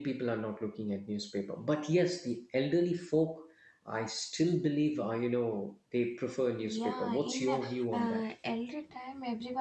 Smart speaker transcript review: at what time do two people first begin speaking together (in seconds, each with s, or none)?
6.6 s